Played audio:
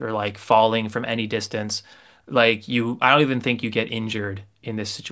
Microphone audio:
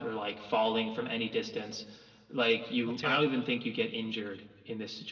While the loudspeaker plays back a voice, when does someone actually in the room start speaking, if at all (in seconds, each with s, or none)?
2.8 s